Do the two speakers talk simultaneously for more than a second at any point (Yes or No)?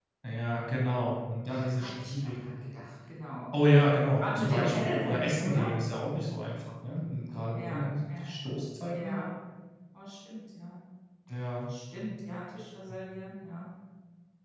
Yes